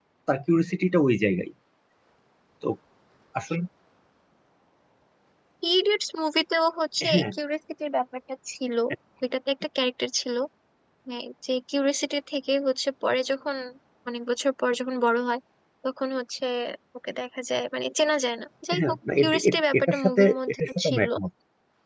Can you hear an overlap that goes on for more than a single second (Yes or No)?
Yes